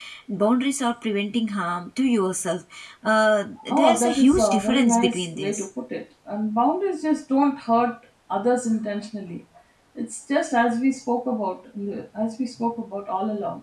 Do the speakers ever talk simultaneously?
Yes, from 3.7 s

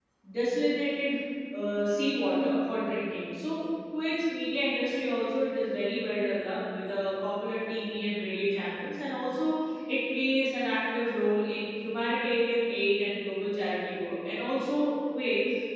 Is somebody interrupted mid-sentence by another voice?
No

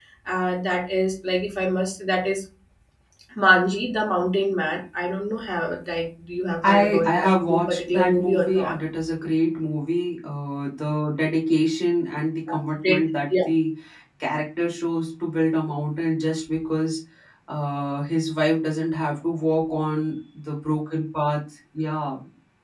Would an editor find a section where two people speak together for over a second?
Yes, from 6.6 s

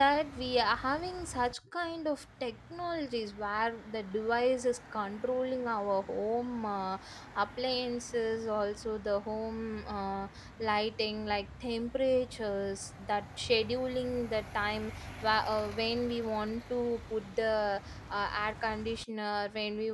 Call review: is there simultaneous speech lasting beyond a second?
No

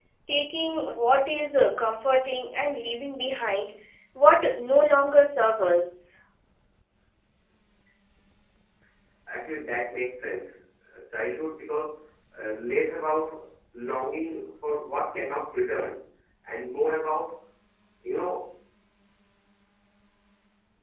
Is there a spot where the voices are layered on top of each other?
No

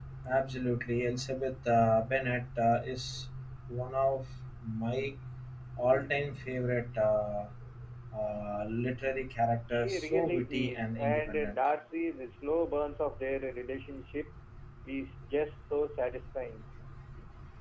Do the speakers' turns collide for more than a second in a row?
Yes, from 9.7 s

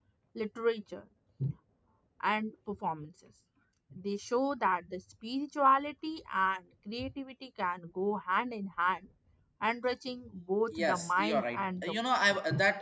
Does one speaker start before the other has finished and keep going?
Yes, from 10.7 s

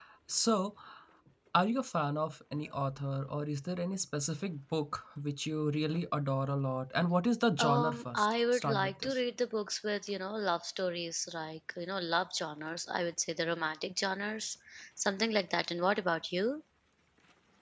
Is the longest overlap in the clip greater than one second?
Yes, from 7.6 s

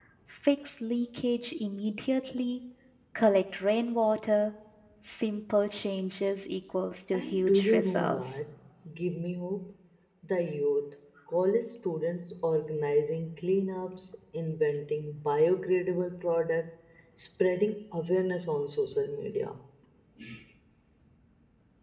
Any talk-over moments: Yes, from 7.1 s

